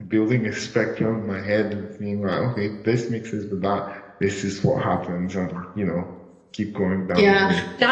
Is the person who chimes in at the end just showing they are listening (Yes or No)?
No